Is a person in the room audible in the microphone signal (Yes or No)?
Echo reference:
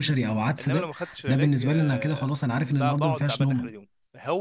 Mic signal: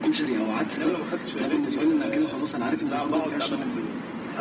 No